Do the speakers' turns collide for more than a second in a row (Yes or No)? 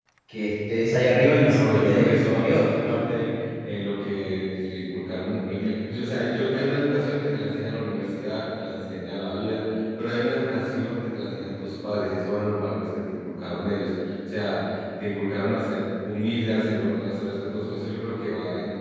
Yes